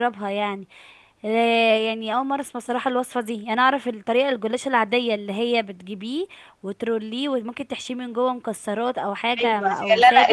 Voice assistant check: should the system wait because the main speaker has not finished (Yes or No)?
No